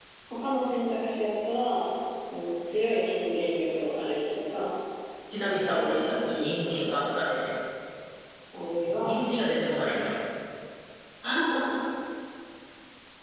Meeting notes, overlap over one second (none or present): present